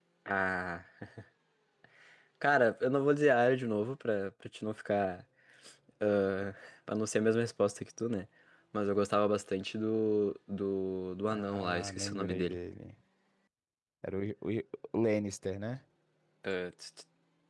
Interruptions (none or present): present